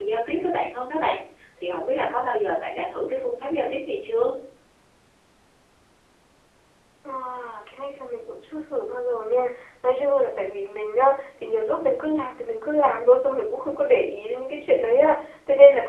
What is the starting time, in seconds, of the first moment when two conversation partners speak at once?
none

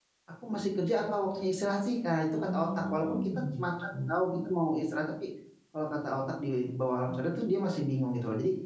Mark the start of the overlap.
2.4 s

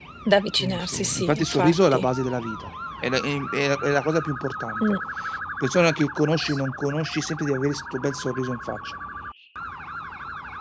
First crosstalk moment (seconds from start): 0.6 s

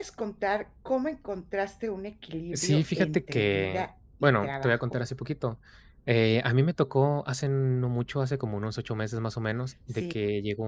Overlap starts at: 2.5 s

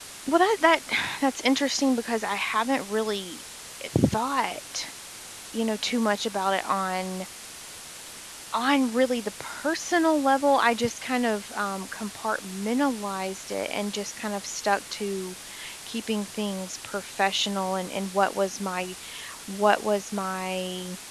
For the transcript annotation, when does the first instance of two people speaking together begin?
none

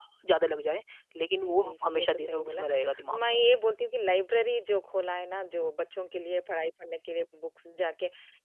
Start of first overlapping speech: 1.4 s

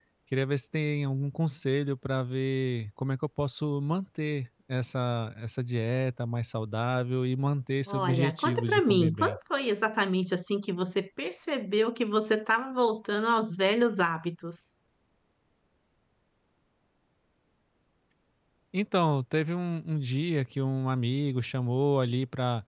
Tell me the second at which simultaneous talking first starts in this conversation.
7.9 s

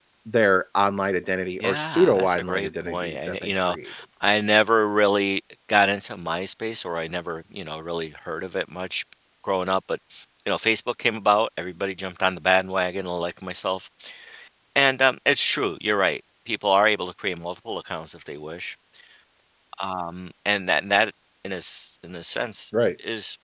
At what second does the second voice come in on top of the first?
1.6 s

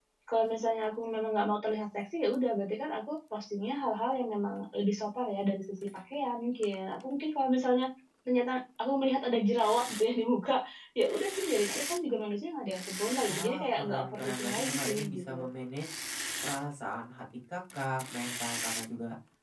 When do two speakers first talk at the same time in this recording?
13.3 s

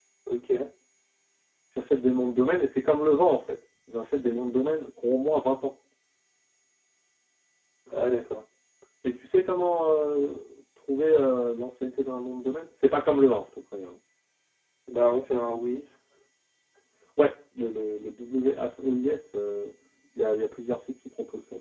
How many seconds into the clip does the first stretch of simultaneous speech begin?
none

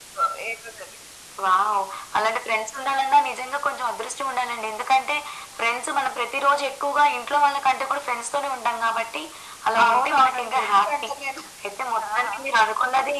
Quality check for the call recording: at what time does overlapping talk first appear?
9.9 s

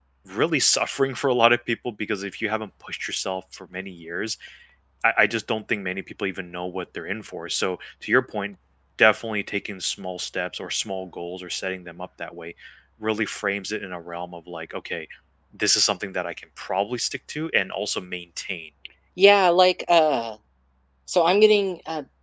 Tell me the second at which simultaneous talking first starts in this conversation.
none

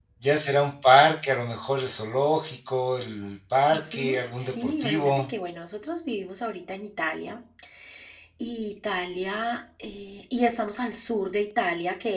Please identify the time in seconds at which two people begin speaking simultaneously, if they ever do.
3.7 s

